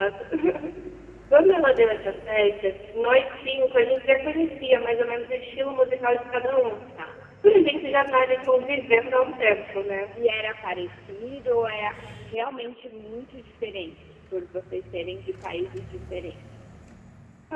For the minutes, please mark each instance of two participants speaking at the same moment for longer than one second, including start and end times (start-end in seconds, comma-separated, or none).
none